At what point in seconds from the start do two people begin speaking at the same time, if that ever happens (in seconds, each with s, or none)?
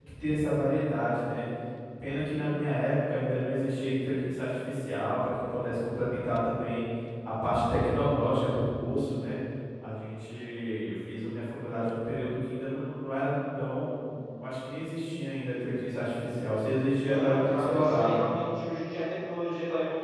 17.0 s